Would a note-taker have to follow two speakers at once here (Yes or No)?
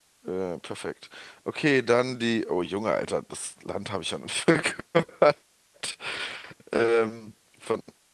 No